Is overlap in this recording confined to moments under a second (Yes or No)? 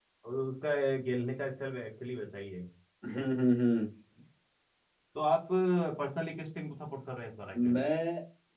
Yes